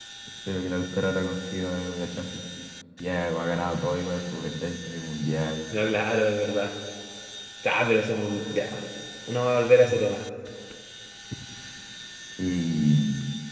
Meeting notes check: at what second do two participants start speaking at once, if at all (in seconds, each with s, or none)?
none